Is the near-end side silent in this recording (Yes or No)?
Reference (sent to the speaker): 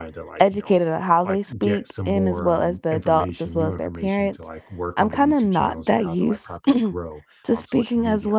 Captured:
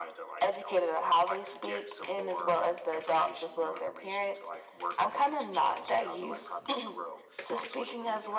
Yes